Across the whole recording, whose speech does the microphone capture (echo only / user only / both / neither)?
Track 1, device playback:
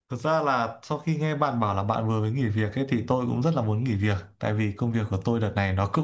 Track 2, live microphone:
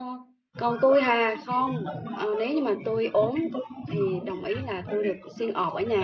both